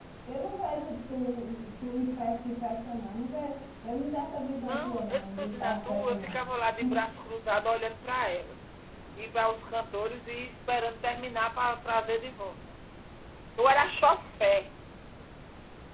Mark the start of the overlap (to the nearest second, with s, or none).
5 s